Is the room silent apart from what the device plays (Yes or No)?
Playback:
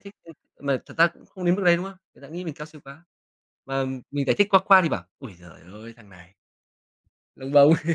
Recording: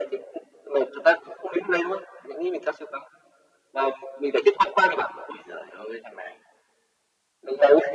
Yes